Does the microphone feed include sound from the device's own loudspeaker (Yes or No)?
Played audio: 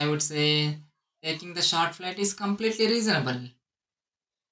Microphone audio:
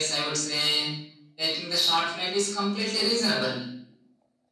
Yes